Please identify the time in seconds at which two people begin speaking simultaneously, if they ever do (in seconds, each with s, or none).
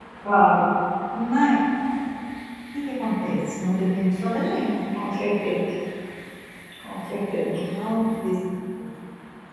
none